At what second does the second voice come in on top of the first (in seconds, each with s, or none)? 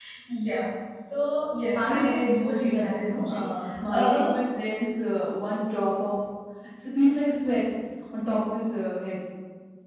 1.8 s